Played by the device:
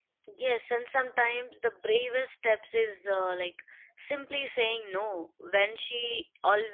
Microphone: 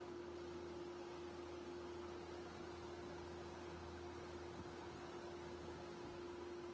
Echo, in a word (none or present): none